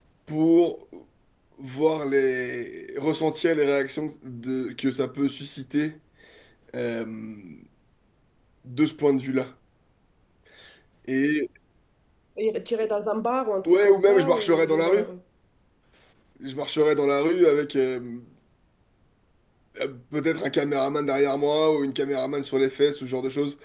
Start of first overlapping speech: 14 s

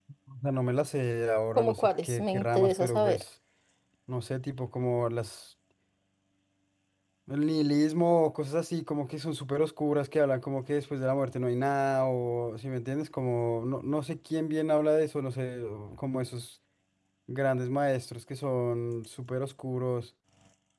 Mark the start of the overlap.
2 s

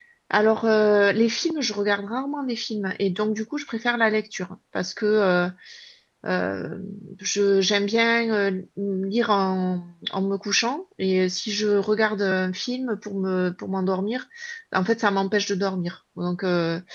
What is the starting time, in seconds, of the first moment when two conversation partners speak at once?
none

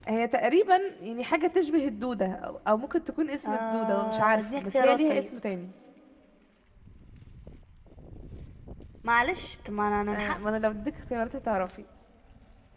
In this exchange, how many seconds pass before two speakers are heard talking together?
3 s

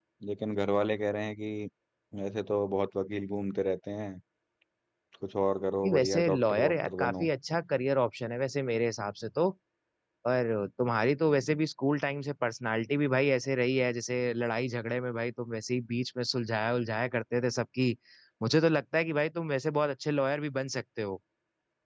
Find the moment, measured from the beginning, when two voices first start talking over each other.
6 s

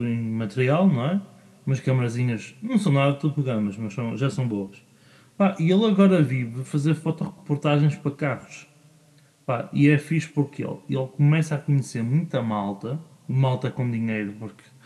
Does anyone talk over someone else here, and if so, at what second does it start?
none

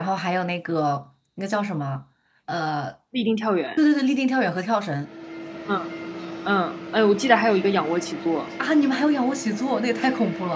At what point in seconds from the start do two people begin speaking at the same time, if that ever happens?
none

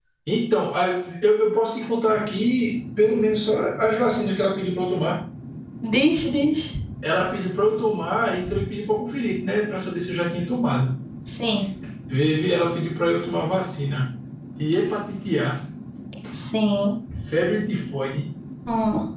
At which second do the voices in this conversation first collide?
none

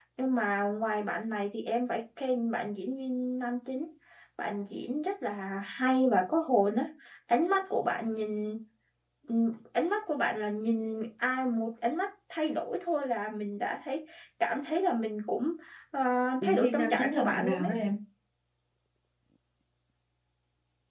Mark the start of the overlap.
16 s

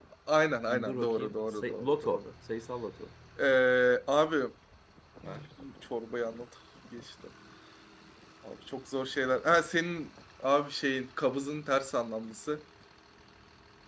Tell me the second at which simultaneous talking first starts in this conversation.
1 s

